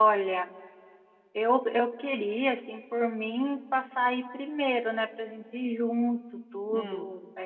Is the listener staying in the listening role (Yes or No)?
Yes